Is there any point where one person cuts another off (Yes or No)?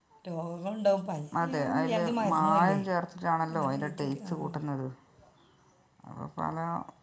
Yes